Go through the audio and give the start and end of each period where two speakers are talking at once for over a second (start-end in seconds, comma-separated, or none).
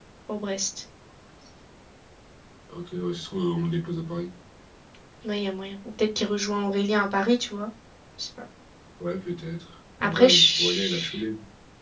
10.0-11.2